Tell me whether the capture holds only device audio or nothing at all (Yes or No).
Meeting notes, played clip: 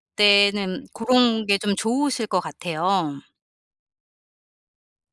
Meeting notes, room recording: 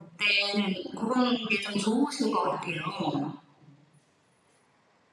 Yes